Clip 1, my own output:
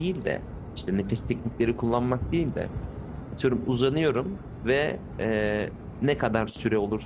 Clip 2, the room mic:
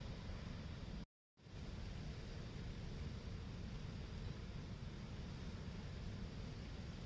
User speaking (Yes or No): No